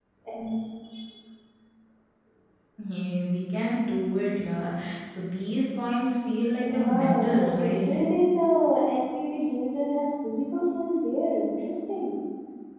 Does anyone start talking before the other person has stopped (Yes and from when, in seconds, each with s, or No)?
Yes, from 6.6 s